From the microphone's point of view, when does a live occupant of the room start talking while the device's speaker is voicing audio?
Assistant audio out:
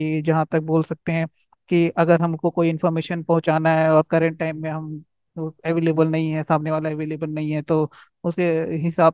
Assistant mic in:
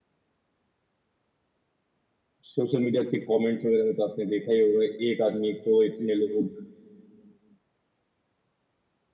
2 s

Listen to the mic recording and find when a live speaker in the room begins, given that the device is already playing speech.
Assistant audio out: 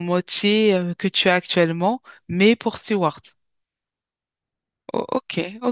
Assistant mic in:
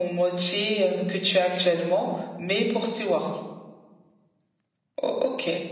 none

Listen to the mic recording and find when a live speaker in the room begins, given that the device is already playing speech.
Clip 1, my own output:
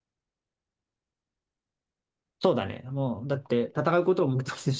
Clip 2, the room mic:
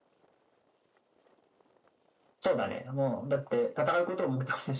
none

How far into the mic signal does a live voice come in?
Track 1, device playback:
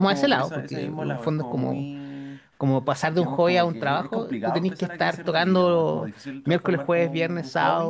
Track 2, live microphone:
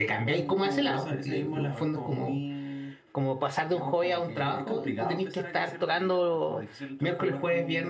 none

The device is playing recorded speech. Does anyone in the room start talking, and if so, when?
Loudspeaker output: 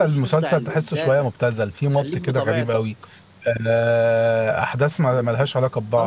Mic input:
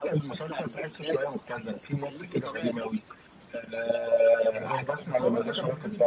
4 s

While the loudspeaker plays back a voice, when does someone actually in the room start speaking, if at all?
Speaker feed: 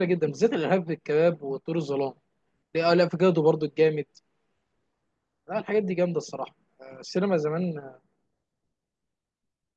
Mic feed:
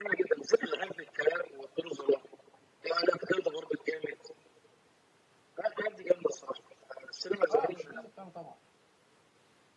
8 s

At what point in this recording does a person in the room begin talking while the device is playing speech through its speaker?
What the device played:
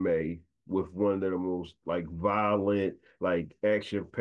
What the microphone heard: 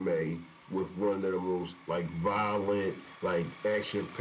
none

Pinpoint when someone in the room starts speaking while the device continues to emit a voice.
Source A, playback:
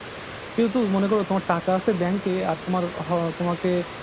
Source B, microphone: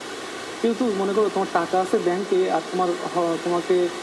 none

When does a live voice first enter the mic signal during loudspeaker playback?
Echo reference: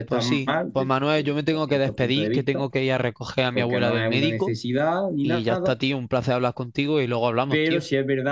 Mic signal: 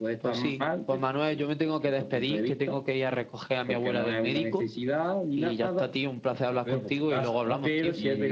6 s

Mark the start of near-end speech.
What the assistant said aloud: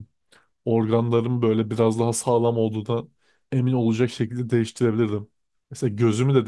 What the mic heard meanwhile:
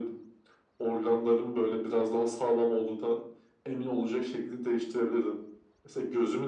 none

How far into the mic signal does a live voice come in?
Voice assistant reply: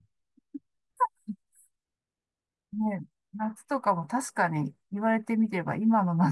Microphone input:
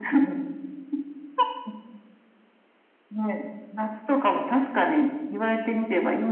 none

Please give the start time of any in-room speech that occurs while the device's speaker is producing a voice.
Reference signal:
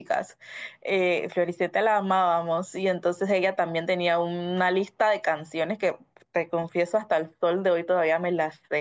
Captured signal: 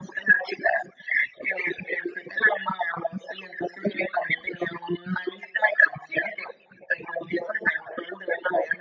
none

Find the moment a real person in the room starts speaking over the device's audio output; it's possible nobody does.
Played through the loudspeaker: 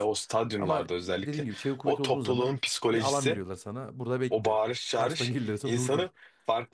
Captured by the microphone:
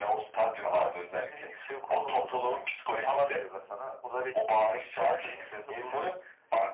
none

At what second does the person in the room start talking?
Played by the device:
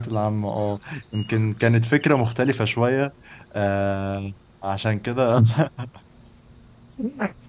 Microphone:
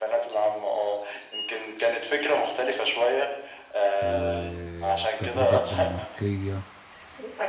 4 s

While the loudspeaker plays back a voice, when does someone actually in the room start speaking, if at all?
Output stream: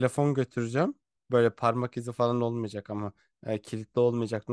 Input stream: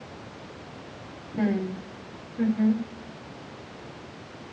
1 s

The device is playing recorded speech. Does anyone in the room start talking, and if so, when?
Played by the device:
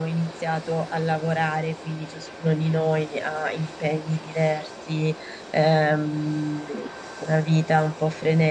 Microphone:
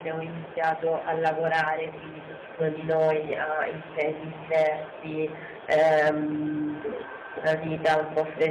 none

